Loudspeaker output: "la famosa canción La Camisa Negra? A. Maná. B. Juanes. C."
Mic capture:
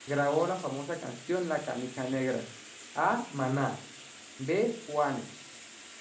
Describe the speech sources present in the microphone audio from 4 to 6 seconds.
echo only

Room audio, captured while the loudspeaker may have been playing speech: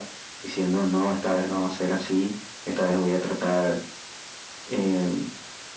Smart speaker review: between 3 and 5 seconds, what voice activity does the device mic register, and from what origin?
echo only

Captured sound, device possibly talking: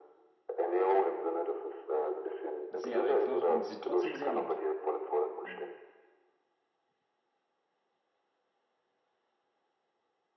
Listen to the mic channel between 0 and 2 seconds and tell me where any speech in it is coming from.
echo only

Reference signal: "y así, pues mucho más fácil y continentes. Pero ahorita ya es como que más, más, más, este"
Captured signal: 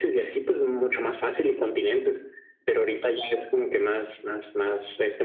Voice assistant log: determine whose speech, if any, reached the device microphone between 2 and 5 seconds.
echo only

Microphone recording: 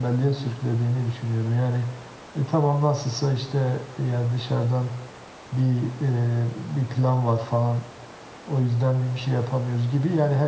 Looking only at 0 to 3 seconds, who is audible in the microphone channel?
echo only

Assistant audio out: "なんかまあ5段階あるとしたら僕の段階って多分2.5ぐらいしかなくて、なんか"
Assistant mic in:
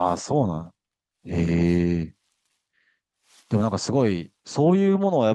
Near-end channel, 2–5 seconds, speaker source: user only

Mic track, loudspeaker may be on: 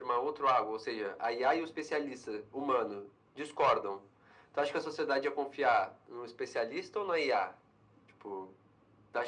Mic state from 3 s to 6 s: echo only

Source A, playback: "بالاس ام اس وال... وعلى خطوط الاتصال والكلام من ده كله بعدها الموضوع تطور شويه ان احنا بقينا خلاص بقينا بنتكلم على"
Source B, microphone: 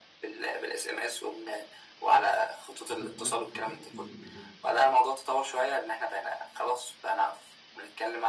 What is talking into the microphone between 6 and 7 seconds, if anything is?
echo only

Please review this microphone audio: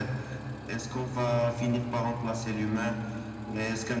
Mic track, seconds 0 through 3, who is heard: echo only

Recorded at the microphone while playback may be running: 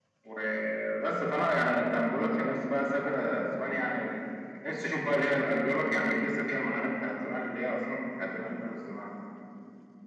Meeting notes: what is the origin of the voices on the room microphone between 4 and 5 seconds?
echo only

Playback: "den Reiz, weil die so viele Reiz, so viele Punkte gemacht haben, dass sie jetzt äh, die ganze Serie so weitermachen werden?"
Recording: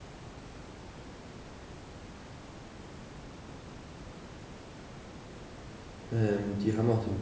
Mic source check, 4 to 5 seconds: neither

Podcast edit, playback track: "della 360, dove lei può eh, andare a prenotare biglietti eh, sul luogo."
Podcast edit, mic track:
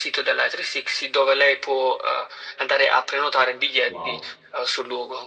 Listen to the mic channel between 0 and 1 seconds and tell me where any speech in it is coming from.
echo only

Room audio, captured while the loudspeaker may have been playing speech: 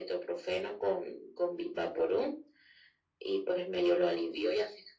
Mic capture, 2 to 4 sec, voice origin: echo only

